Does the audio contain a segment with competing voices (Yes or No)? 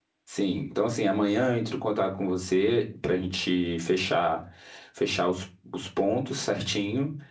No